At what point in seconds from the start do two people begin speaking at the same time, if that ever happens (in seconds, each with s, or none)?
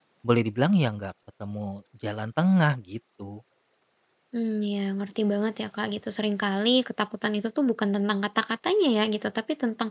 none